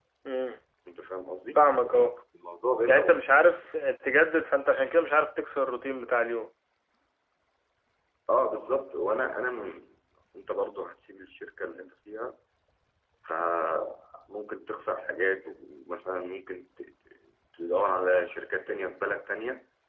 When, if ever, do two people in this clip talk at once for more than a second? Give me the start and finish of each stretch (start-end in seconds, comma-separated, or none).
none